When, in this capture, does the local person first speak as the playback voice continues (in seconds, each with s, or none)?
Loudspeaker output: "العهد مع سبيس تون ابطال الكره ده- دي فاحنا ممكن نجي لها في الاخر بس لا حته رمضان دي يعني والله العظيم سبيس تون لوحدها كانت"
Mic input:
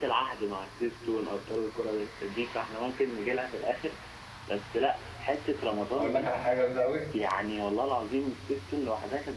6.0 s